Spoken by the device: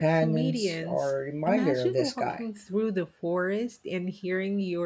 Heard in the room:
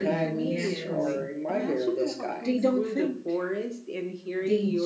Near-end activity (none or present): present